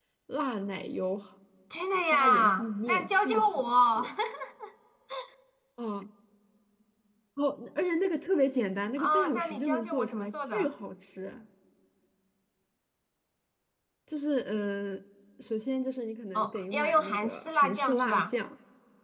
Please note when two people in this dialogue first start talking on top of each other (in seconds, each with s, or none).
2.0 s